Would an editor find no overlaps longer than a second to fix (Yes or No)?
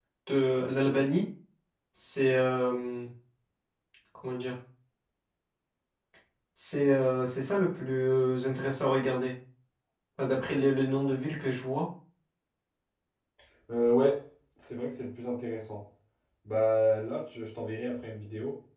Yes